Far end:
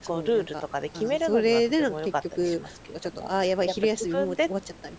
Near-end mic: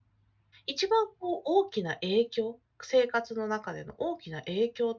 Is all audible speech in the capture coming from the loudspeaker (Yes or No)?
No